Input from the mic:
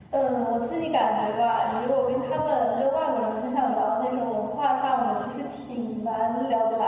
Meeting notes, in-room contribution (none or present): present